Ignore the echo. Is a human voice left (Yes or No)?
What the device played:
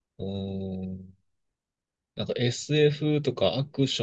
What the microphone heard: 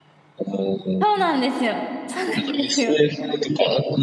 Yes